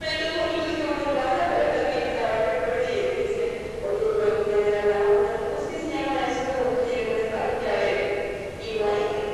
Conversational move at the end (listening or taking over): listening